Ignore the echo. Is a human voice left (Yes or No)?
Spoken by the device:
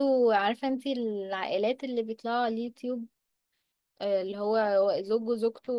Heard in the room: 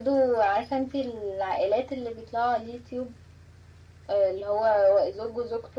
No